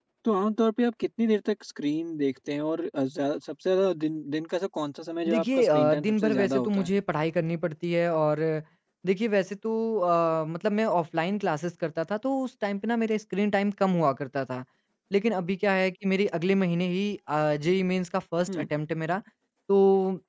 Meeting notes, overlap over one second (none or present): present